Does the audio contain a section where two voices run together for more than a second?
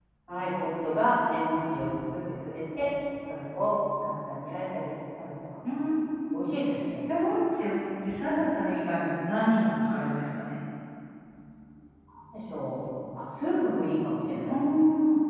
No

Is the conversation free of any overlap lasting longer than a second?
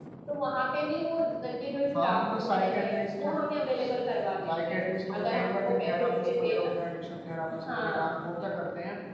No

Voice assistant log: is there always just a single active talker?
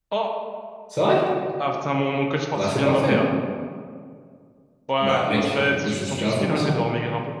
No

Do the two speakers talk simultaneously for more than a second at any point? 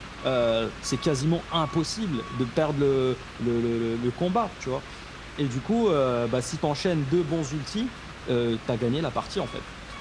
No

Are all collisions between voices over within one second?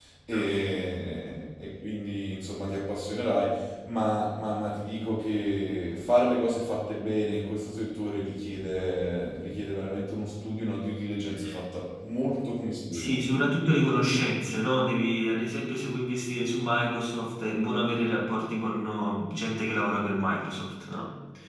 Yes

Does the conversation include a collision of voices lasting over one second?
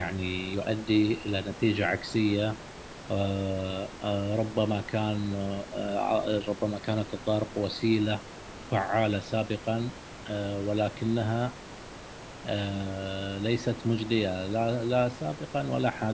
No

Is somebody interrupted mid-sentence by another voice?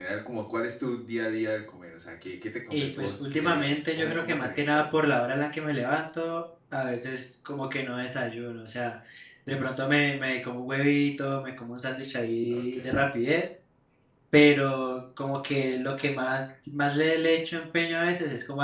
Yes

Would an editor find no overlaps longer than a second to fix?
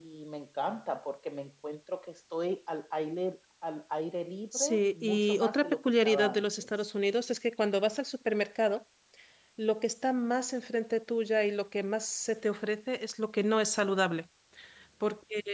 No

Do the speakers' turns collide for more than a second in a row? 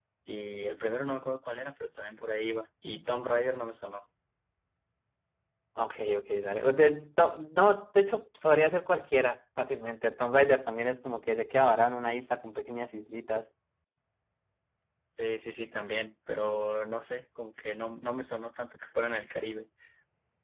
No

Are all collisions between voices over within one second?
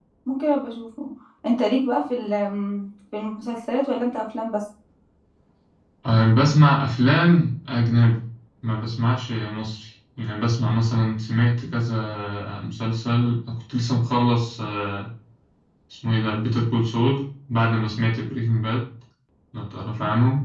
Yes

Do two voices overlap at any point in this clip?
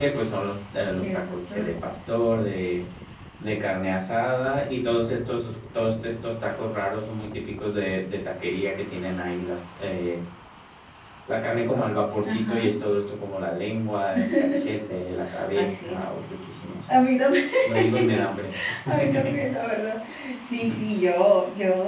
Yes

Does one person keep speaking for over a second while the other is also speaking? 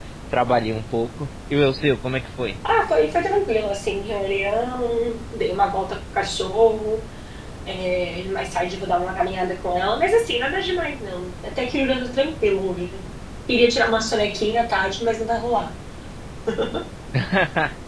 No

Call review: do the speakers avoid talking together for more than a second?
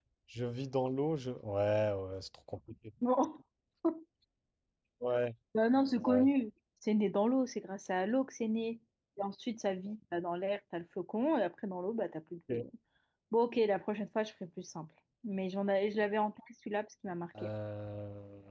Yes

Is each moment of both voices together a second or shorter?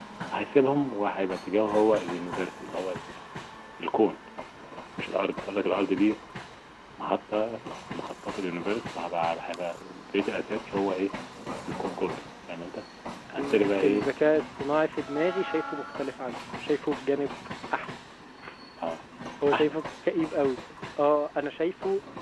Yes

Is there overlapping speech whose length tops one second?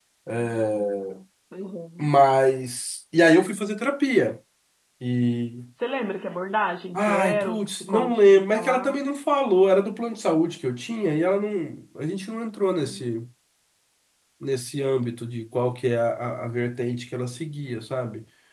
Yes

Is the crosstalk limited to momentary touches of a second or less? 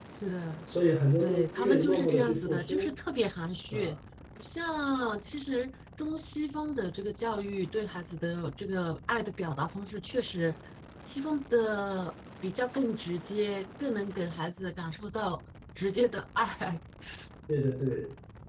No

